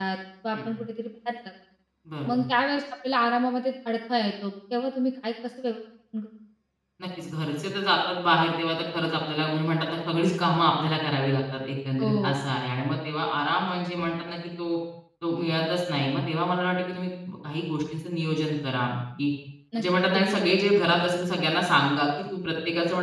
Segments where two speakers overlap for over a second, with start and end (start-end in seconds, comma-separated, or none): none